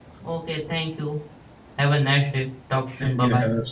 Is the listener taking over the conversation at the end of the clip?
Yes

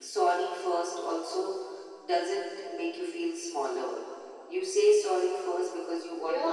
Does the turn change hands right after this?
Yes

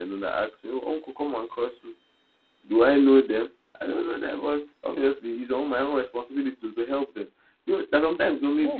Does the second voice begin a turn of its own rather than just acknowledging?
No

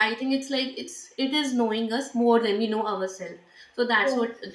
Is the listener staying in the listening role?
Yes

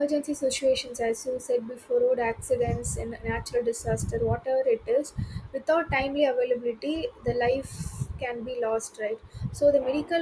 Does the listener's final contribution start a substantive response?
No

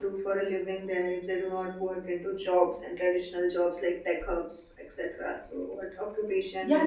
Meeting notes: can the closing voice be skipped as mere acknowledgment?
No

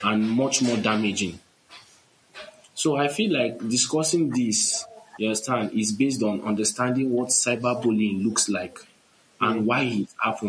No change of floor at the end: Yes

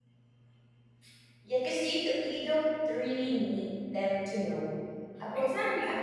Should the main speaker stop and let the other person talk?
Yes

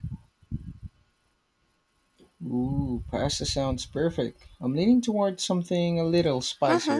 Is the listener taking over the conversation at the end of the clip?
Yes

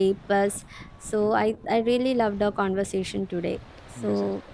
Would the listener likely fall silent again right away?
No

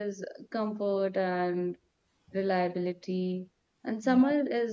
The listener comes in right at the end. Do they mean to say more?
No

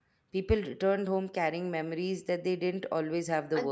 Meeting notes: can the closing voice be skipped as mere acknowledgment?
No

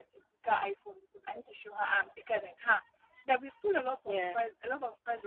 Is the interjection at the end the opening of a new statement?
No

